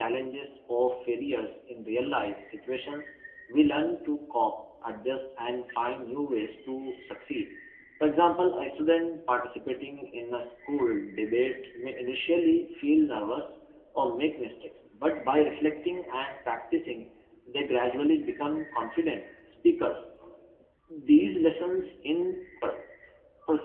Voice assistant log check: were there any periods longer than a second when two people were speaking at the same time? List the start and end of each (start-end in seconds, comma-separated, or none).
none